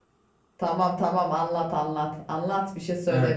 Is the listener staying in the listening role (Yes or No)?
No